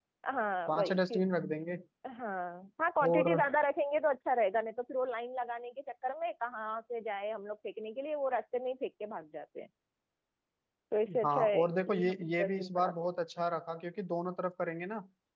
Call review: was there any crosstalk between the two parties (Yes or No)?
Yes